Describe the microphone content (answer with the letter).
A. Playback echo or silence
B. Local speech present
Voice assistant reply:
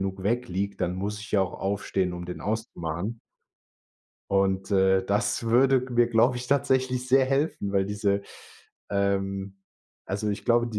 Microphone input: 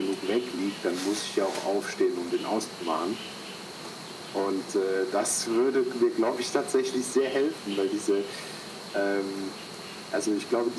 A